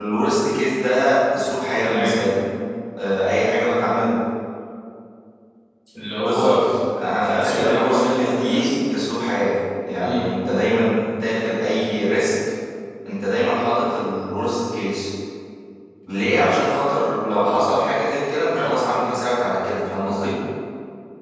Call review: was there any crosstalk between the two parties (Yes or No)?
Yes